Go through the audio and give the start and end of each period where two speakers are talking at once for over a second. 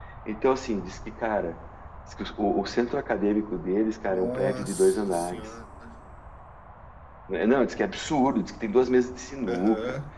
4.1-5.4

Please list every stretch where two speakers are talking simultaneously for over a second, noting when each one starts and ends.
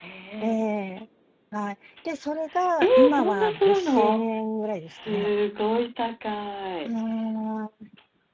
2.8-4.3

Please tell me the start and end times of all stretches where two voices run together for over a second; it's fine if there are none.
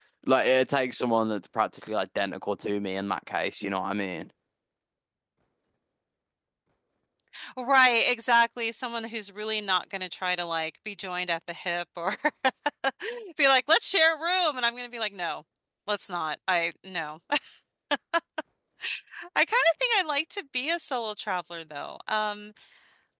none

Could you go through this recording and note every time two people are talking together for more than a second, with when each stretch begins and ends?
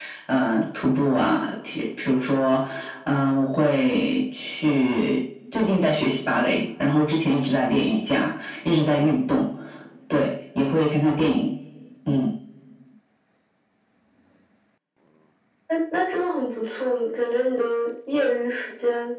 none

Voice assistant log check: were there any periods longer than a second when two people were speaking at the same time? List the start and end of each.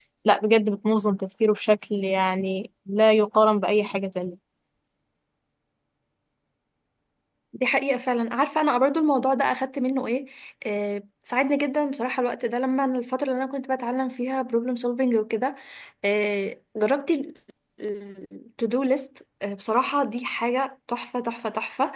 none

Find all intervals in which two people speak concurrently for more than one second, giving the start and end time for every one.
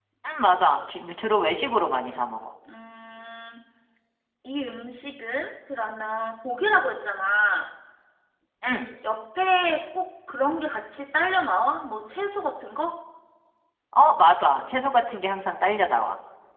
none

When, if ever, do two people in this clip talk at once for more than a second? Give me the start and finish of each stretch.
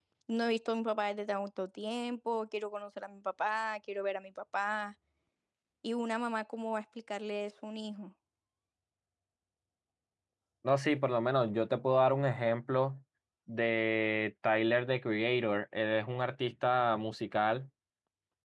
none

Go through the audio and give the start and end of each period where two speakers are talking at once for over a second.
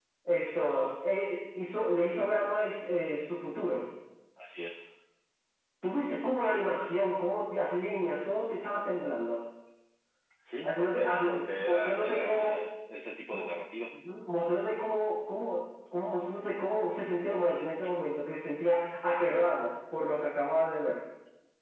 10.6-12.6

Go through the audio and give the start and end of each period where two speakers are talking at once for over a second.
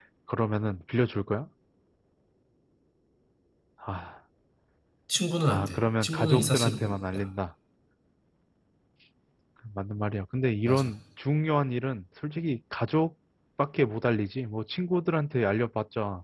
5.5-7.3

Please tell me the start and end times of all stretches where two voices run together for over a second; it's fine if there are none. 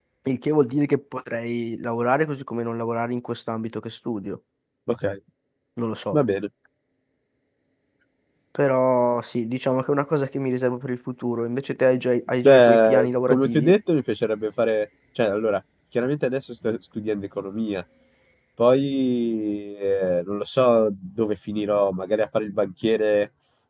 12.4-13.8

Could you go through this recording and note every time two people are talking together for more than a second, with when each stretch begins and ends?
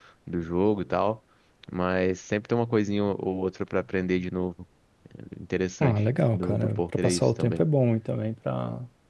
5.8-7.6

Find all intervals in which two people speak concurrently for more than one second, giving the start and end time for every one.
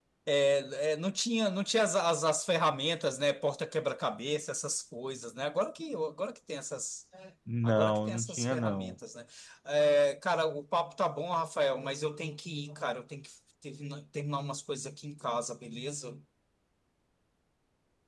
7.6-8.9

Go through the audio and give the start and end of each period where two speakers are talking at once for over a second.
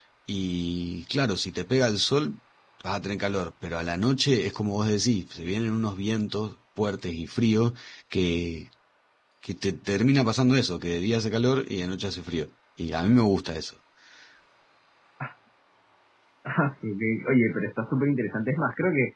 none

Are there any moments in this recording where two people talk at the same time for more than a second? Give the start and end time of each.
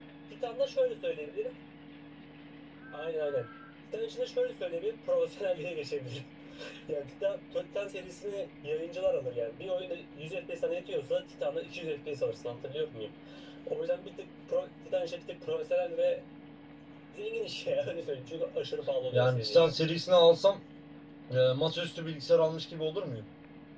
none

